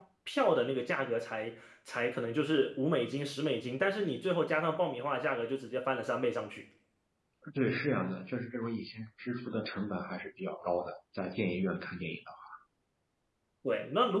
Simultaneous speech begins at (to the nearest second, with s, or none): none